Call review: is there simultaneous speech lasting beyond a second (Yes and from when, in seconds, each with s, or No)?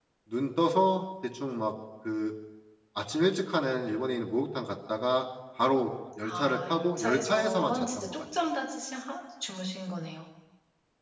Yes, from 6.2 s